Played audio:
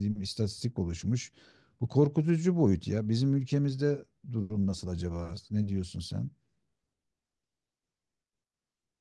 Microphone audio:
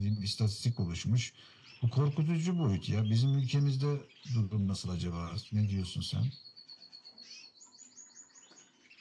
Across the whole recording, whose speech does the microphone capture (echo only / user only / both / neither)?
echo only